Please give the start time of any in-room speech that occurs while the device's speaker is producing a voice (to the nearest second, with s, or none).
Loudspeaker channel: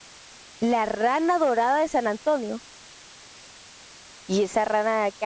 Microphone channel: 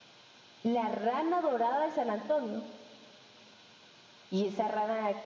none